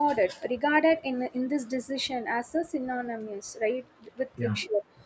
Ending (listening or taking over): listening